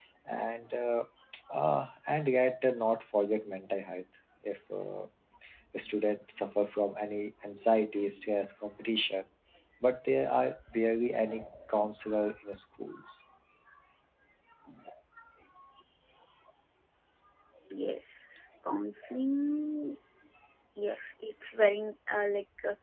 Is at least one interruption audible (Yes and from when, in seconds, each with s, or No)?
No